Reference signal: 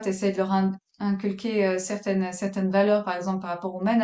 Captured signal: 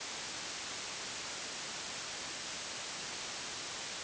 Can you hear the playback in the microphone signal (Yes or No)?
No